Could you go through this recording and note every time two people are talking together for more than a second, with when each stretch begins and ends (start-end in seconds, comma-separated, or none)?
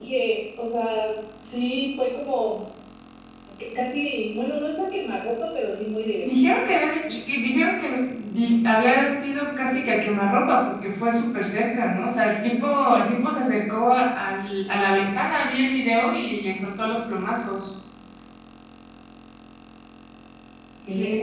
none